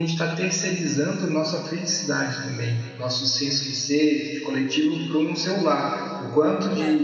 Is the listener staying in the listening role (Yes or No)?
Yes